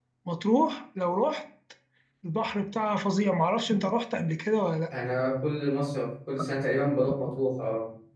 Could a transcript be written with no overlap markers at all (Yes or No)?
Yes